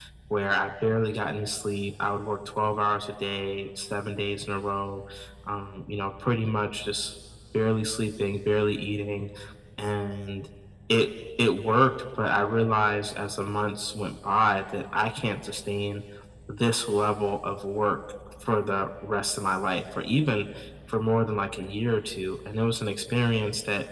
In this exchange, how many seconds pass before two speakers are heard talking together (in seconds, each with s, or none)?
none